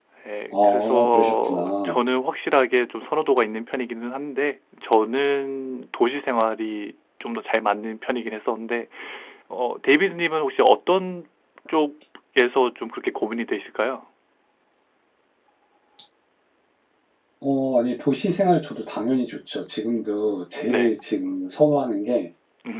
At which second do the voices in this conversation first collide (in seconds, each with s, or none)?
0.5 s